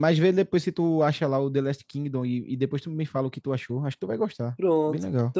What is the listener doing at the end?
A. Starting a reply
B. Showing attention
A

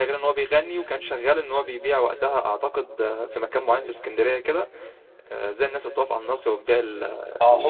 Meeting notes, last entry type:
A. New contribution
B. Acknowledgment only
A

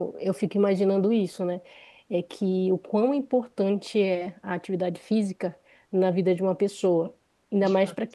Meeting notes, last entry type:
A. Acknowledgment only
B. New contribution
A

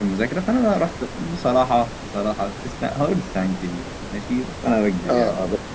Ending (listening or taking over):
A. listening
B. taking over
B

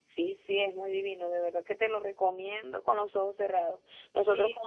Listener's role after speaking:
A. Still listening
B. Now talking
A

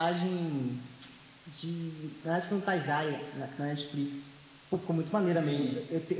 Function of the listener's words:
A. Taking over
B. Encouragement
B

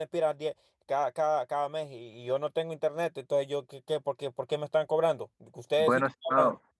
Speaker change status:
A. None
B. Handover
A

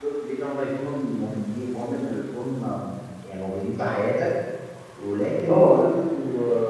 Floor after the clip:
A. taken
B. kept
B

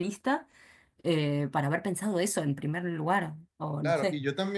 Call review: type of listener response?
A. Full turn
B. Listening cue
A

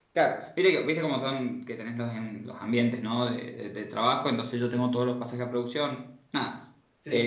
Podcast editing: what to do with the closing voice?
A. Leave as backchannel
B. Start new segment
A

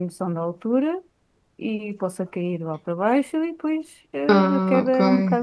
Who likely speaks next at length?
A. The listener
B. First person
B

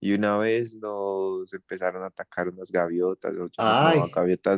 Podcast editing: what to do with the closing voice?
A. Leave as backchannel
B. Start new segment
A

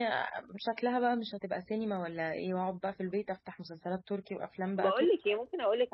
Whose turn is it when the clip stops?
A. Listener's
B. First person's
A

